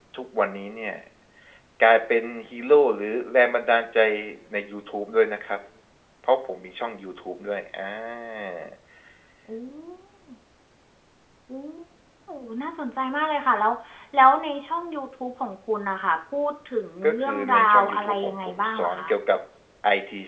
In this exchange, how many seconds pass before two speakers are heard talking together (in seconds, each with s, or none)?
17.0 s